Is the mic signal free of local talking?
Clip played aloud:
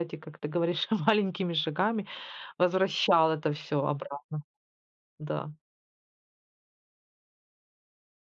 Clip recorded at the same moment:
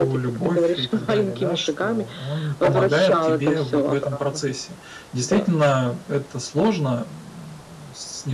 No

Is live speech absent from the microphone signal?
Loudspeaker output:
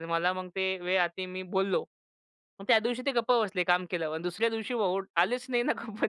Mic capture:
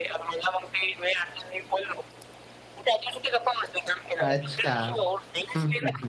No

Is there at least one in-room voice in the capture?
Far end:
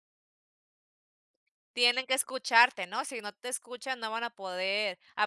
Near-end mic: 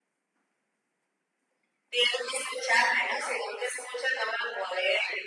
No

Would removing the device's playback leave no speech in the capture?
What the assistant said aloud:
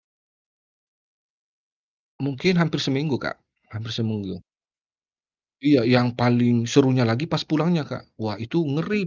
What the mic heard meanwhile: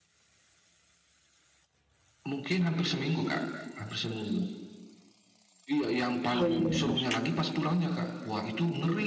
No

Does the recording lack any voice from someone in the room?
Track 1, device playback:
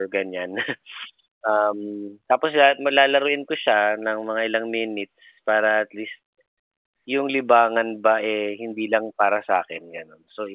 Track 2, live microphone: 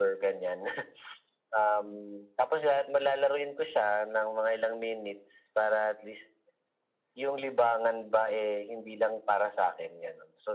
Yes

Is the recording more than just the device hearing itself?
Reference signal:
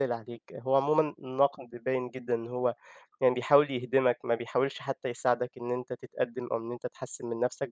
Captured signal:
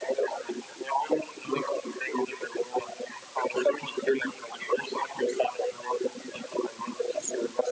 No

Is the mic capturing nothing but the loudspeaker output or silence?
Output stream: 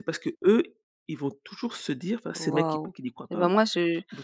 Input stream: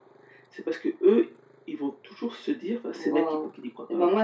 Yes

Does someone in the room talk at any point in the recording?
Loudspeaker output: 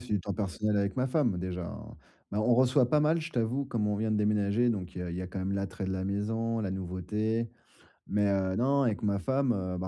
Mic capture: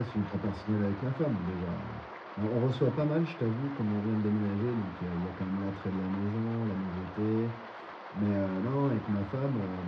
No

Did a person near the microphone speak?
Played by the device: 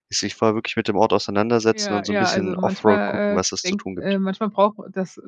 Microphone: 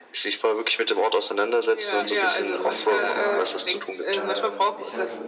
Yes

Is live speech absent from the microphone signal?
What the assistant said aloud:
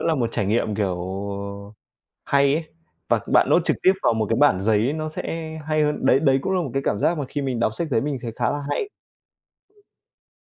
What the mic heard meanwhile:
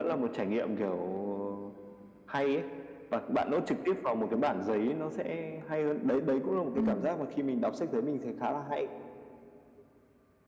No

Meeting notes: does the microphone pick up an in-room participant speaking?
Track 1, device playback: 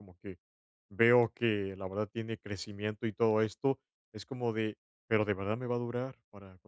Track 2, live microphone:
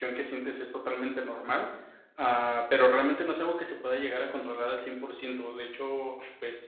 Yes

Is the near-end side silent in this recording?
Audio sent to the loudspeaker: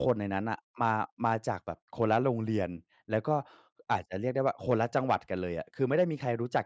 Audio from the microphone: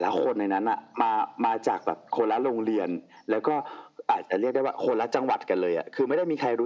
Yes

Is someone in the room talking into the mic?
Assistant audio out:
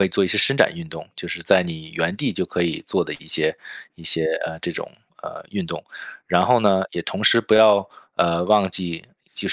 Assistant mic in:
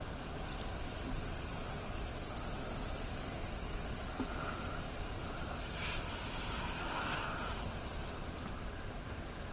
No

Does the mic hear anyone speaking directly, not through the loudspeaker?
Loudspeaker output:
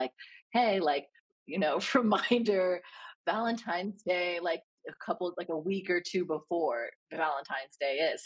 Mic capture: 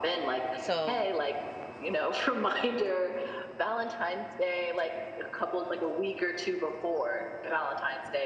Yes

